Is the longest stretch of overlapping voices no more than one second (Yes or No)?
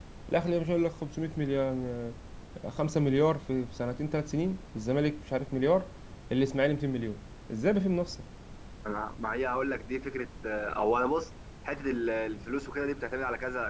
Yes